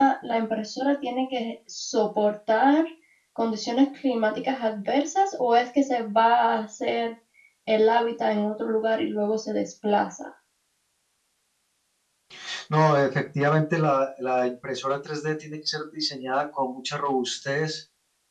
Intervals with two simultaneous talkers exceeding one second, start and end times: none

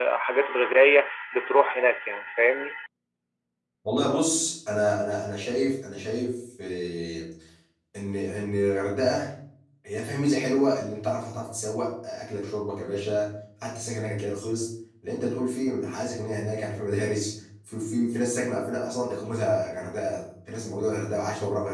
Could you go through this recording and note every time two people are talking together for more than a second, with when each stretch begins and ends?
none

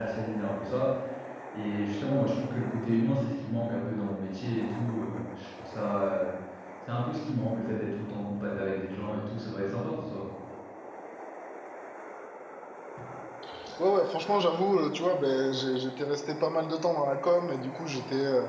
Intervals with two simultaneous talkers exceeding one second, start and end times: none

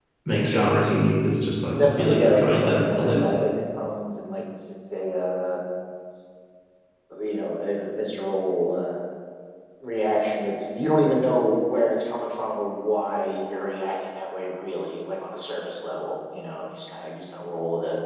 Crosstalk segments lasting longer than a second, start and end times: 1.8-3.4

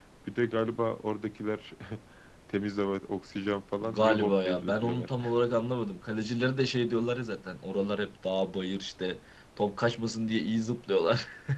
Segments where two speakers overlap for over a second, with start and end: 3.8-5.1

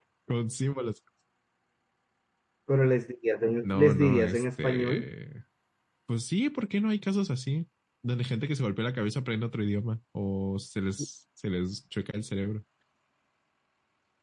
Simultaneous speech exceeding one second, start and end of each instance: 3.6-5.1

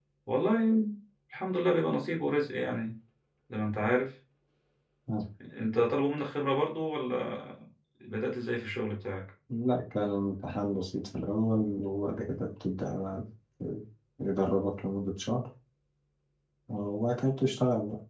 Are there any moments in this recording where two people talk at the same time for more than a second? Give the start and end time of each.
none

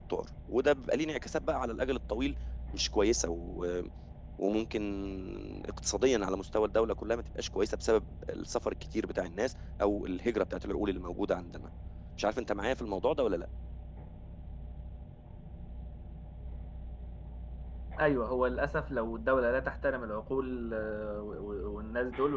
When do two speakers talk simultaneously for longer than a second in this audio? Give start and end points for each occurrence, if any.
none

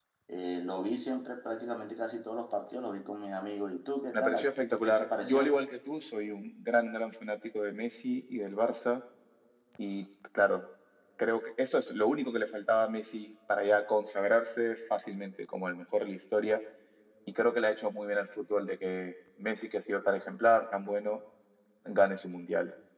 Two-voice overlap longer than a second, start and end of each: 4.1-5.5

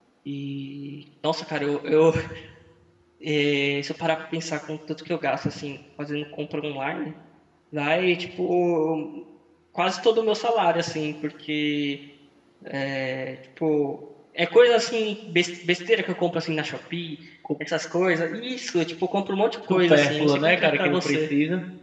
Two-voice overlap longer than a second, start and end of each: 19.7-21.2

